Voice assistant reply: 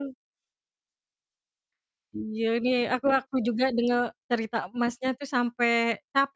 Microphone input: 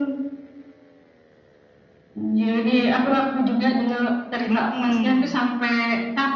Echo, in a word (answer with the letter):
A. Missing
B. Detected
B